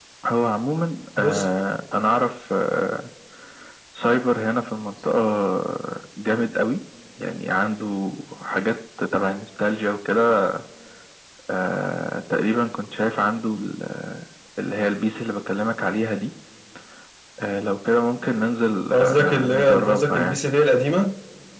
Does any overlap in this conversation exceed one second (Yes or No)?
Yes